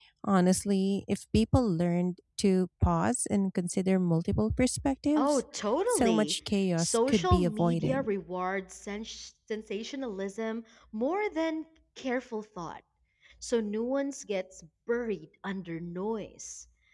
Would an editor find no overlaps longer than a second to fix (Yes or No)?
No